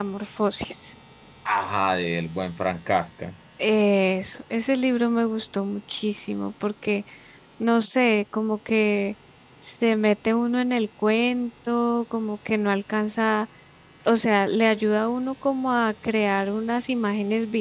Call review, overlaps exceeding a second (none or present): none